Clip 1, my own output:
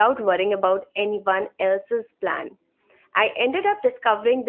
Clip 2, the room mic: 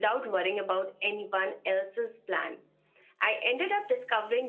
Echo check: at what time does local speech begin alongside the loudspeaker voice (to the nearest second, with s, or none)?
none